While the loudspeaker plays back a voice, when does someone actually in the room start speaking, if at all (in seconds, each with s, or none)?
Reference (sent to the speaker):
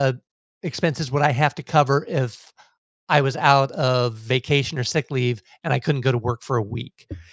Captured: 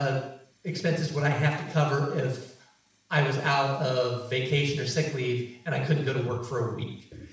none